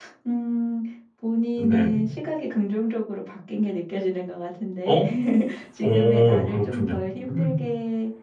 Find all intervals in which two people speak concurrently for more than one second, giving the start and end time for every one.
5.8-7.5

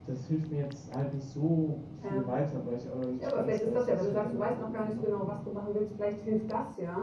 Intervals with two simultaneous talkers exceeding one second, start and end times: 3.2-5.4

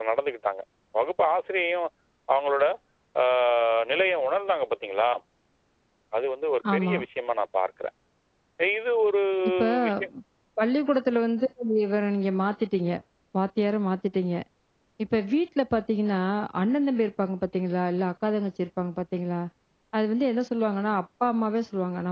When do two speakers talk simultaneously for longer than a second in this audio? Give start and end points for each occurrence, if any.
none

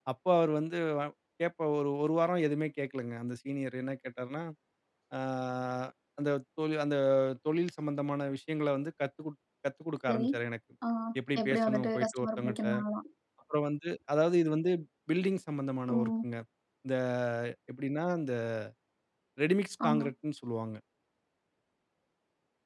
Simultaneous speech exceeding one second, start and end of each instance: 11.4-12.7

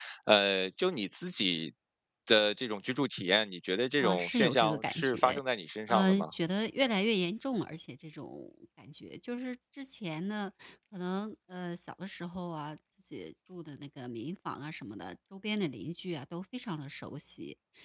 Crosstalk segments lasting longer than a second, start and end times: 4.0-5.4

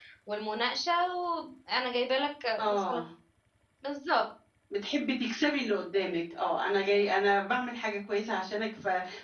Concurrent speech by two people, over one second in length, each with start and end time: none

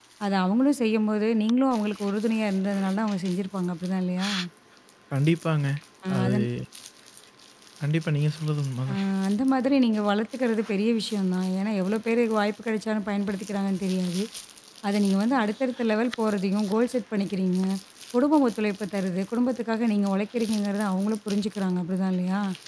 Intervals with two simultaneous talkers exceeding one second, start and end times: none

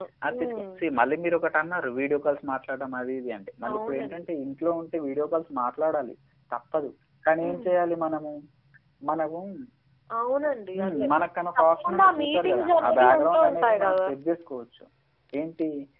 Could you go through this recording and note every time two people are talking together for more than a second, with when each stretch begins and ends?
11.6-14.1

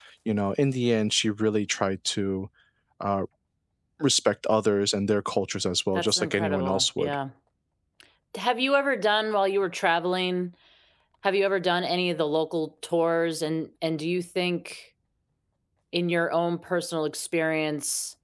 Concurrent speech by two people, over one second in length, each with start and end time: 5.9-7.2

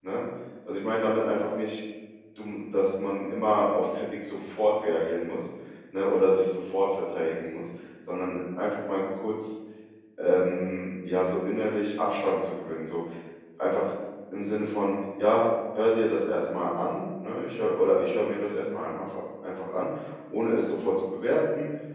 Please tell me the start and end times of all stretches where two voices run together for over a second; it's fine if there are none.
none

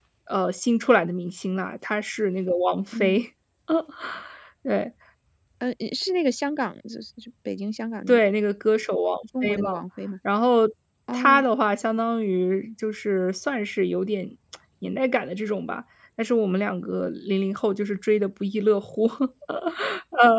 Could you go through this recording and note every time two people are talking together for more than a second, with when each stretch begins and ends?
none

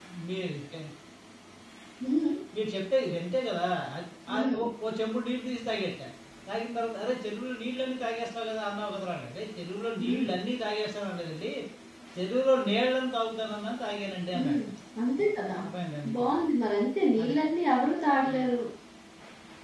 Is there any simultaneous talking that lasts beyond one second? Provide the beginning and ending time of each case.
none

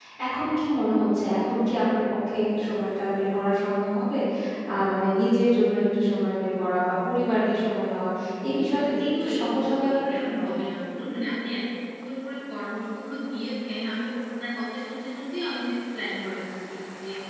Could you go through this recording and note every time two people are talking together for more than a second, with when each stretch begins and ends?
8.5-10.3

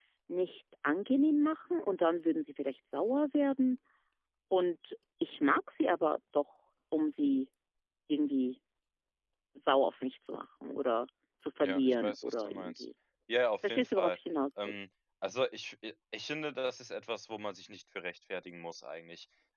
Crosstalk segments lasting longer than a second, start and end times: 11.6-12.8

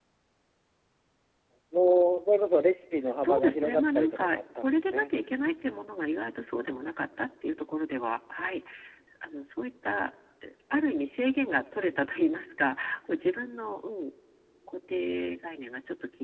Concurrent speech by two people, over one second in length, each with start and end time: 3.2-5.1

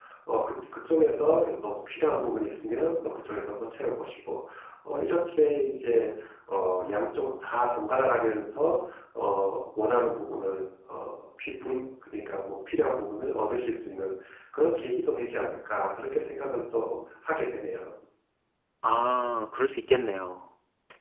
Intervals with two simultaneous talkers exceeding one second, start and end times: none

